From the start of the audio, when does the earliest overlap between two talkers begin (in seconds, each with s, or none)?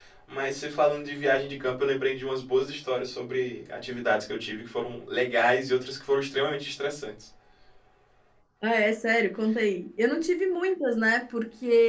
none